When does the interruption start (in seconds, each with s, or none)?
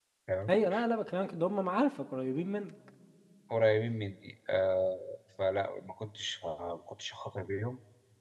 none